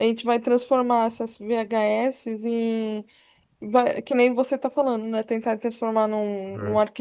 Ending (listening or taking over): listening